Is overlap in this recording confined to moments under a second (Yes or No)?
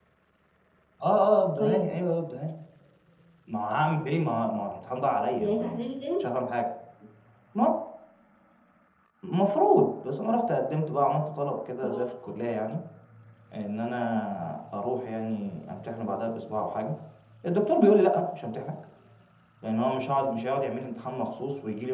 Yes